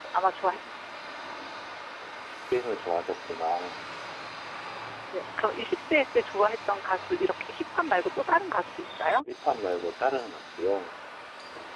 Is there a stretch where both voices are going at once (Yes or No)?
No